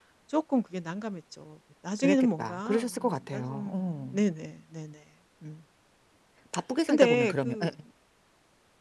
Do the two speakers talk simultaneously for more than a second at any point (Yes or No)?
Yes